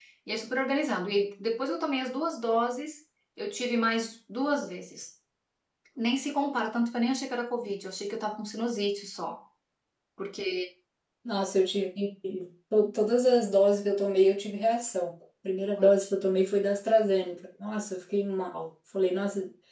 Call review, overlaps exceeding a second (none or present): none